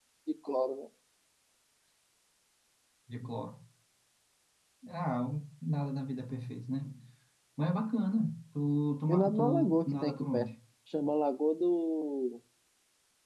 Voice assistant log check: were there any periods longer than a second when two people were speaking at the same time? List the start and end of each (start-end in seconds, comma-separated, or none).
9.1-10.5